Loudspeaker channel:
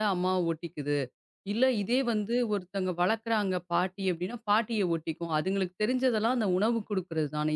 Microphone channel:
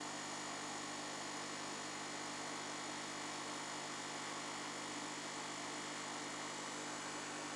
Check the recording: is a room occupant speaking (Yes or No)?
No